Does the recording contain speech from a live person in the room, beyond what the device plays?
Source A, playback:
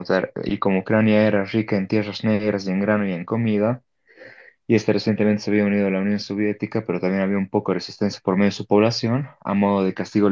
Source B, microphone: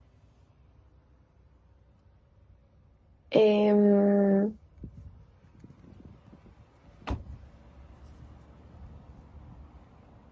Yes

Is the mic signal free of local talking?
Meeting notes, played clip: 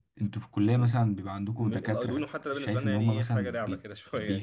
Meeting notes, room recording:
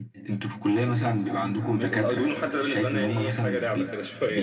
Yes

